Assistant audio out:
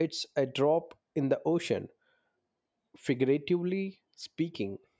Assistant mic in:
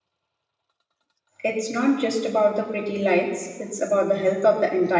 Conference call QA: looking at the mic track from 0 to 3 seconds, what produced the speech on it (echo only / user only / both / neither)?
user only